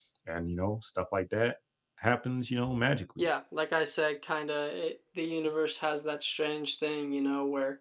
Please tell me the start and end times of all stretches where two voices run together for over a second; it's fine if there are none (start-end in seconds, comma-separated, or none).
none